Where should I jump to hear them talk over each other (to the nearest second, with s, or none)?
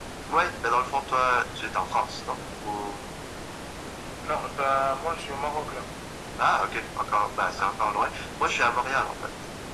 none